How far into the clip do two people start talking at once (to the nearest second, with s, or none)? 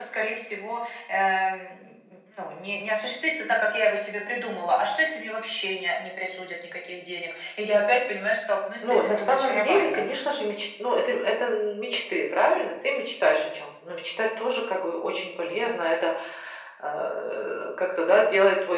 9 s